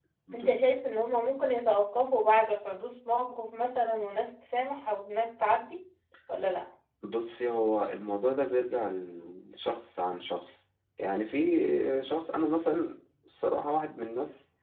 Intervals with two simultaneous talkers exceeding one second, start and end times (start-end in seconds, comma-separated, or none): none